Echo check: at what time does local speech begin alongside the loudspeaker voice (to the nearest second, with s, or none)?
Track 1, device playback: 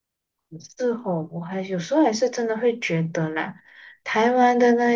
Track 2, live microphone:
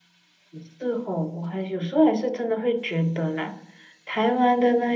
none